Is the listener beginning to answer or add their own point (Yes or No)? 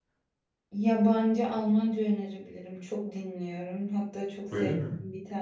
No